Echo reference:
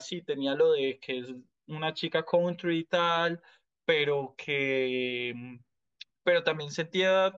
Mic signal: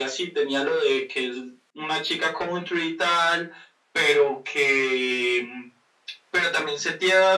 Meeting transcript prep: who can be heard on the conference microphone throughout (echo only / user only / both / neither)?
echo only